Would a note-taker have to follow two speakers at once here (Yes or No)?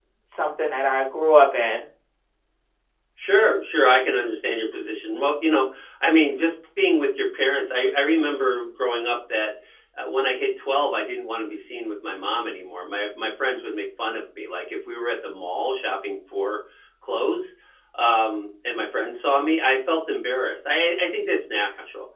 No